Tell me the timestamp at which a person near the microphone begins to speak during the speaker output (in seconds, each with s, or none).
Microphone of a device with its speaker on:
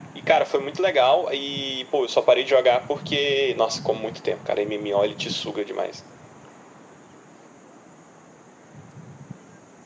none